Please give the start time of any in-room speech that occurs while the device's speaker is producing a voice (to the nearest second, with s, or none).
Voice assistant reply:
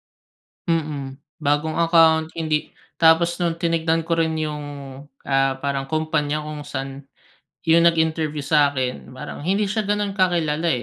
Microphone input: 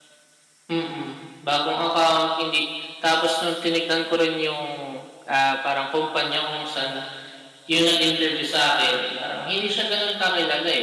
none